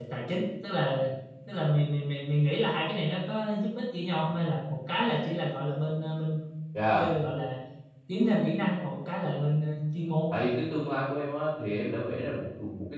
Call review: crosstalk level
none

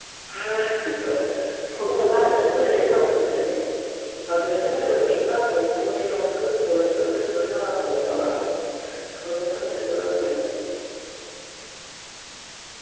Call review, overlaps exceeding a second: present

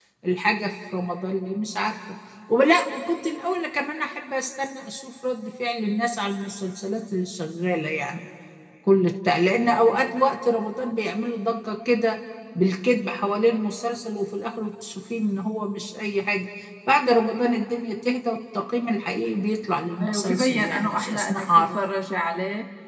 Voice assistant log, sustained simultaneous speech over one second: present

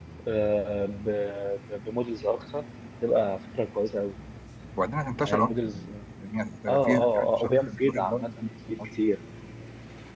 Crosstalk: present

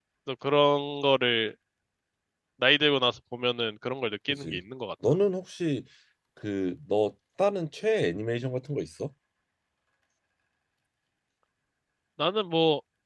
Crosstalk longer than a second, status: none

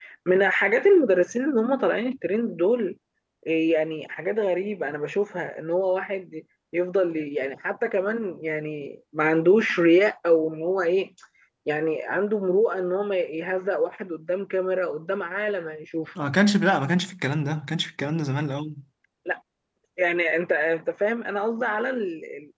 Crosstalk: none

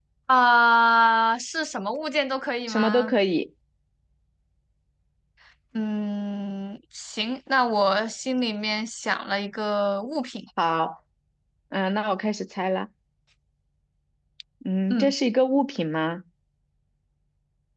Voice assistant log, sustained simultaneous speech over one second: none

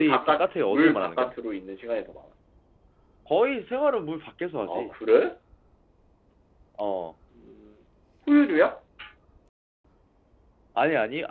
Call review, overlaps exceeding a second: present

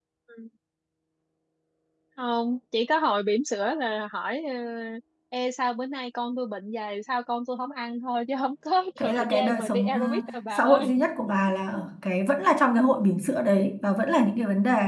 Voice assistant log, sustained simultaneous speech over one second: present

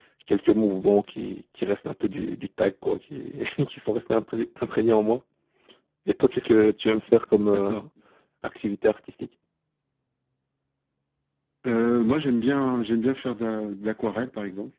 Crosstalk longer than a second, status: none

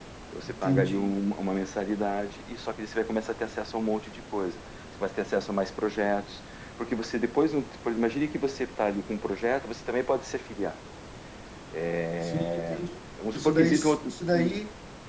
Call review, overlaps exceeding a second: present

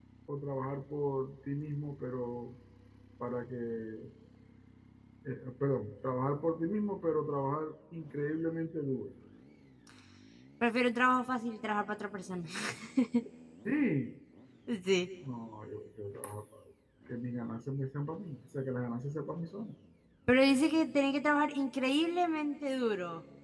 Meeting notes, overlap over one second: none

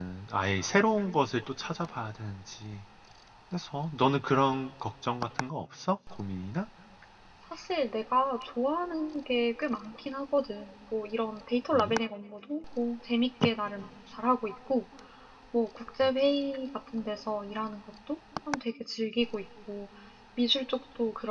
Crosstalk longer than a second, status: none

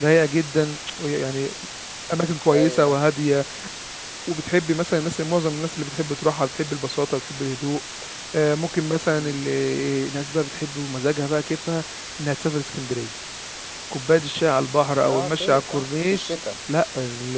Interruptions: present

